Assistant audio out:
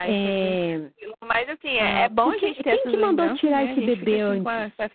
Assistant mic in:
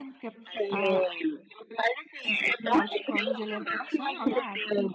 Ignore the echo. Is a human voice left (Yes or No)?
Yes